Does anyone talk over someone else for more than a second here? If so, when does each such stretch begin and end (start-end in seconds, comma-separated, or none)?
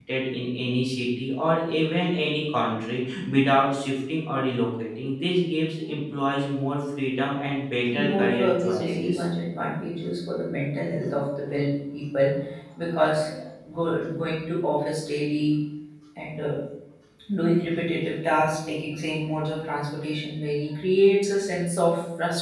7.9-9.2